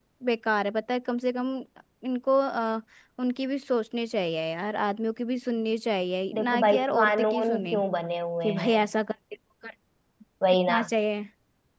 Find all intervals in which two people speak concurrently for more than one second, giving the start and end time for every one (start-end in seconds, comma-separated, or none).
6.3-7.8